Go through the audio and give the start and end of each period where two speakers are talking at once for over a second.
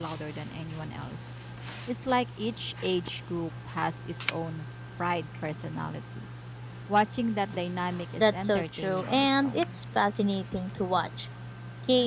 8.2-9.8

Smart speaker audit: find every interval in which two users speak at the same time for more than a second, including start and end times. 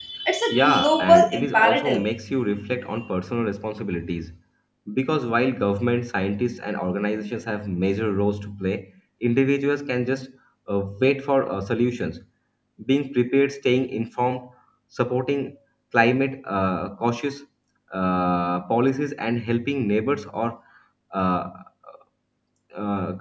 0.5-2.0

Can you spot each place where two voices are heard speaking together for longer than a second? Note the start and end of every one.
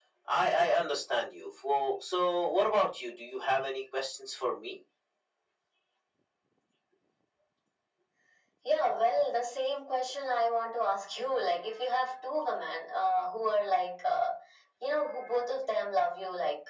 none

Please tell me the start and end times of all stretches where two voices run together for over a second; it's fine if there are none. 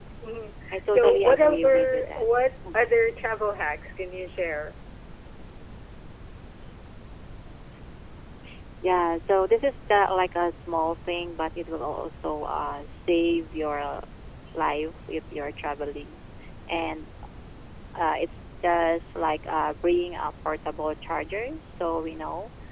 0.7-2.3

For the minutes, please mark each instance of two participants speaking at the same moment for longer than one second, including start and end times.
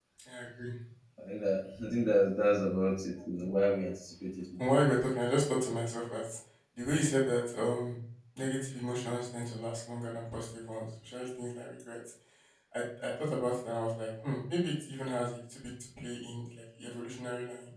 none

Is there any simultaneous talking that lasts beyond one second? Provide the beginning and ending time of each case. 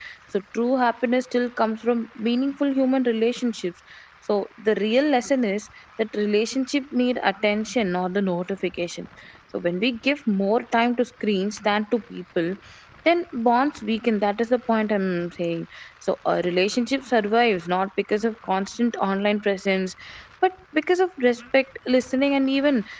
none

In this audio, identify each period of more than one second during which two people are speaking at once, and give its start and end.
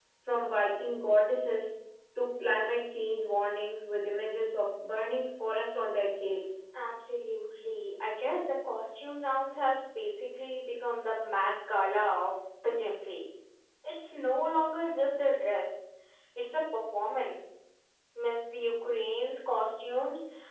none

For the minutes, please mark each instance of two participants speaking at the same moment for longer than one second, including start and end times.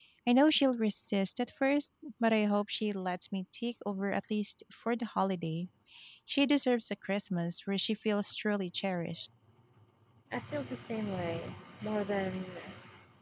none

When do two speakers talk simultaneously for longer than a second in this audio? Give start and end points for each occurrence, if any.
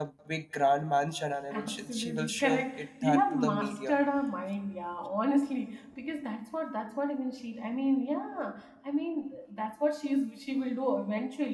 1.5-4.0

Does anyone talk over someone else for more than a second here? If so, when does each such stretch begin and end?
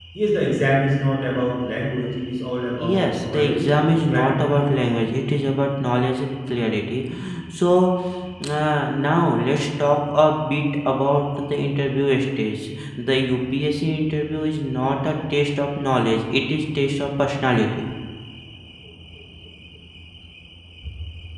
2.8-4.3

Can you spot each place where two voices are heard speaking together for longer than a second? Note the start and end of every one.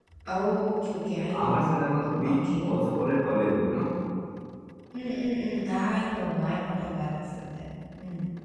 1.4-2.7

